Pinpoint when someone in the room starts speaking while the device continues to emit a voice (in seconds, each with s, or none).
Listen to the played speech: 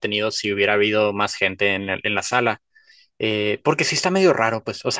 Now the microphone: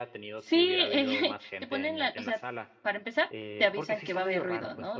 0.3 s